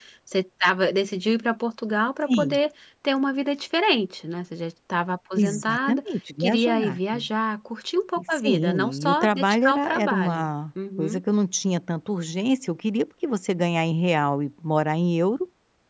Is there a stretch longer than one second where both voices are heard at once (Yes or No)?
Yes